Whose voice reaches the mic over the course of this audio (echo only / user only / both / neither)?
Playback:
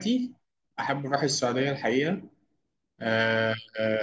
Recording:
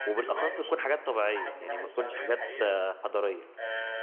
both